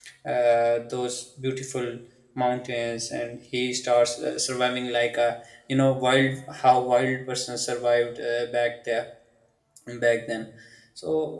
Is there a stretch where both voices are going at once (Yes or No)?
No